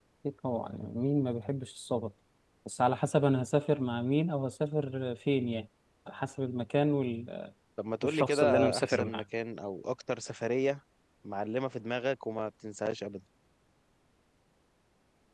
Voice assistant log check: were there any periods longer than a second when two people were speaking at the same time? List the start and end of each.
8.0-9.2

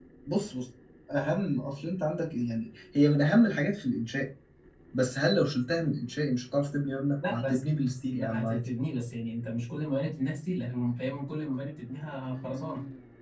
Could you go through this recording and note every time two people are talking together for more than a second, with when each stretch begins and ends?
7.3-8.6

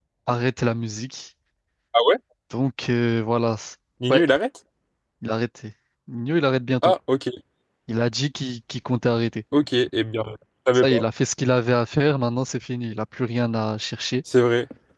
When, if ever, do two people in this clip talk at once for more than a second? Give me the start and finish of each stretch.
none

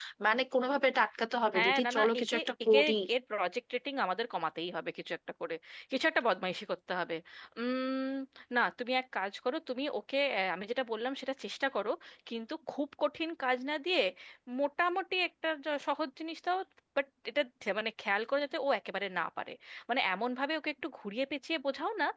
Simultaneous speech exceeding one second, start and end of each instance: 1.6-2.8

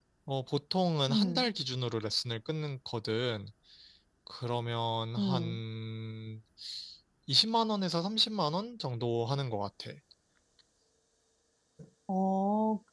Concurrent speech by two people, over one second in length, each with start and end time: none

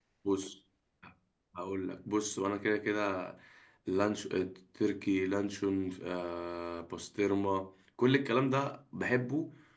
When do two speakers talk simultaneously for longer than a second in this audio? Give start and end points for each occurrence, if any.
none

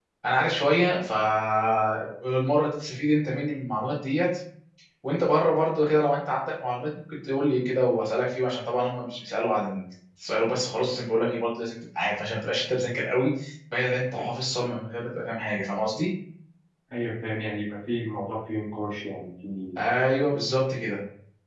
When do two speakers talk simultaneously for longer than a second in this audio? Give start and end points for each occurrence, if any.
none

